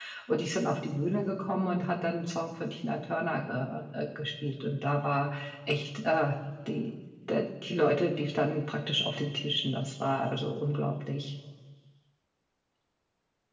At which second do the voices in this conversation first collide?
none

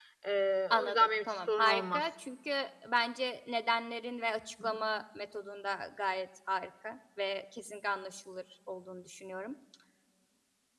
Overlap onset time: 1 s

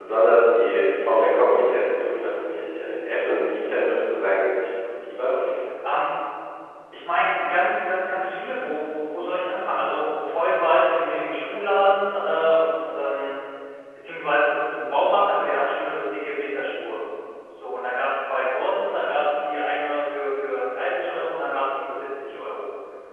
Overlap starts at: none

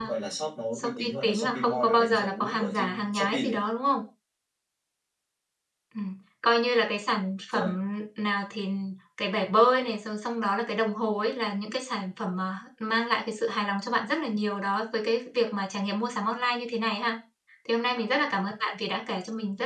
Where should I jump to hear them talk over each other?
1 s

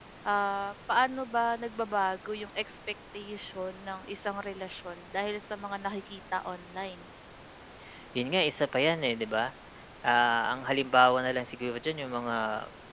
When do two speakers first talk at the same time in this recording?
none

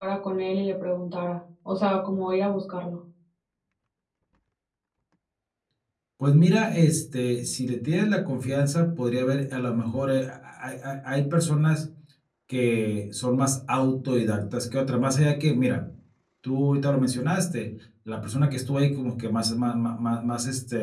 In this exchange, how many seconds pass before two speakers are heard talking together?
none

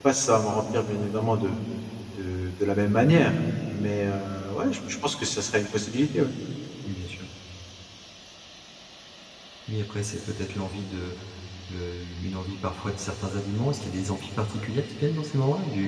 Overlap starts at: none

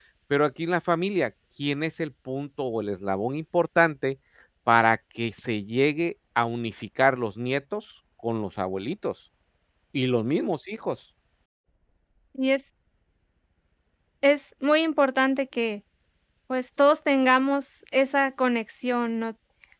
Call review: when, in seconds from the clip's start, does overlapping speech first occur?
none

